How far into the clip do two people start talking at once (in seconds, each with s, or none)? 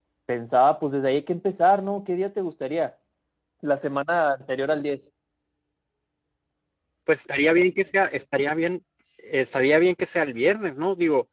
none